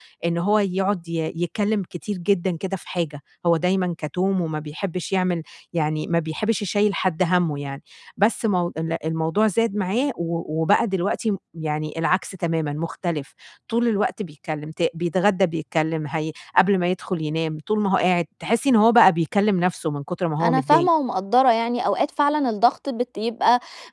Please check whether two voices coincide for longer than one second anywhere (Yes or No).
No